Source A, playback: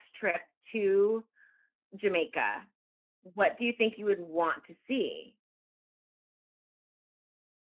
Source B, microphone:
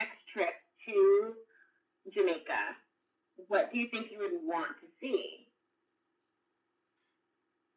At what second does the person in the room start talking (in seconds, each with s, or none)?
none